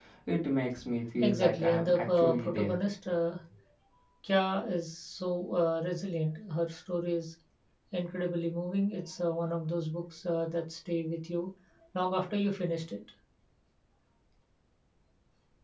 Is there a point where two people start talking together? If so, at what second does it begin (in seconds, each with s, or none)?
1.2 s